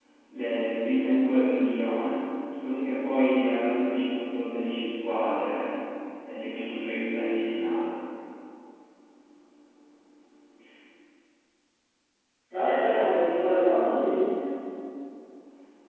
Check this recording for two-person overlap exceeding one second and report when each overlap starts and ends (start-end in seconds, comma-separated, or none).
12.8-14.1